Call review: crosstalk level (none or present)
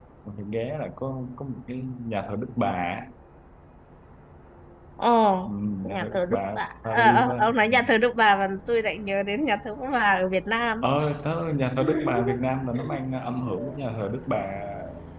present